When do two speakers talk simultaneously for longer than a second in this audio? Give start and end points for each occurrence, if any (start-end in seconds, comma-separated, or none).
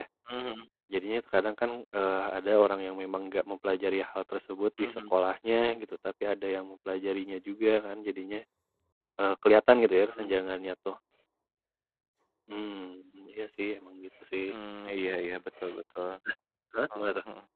none